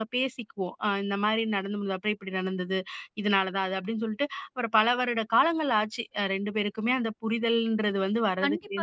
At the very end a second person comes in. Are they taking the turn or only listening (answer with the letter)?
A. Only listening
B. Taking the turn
B